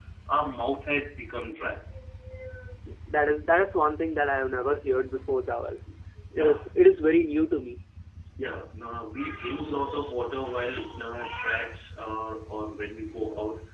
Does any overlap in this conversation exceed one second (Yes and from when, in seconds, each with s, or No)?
No